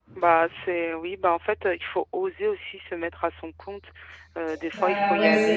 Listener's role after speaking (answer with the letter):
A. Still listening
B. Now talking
B